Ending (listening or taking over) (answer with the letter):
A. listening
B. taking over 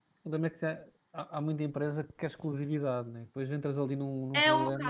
B